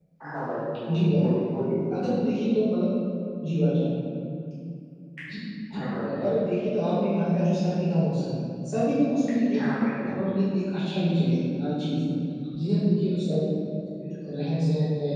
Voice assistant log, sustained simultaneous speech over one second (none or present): none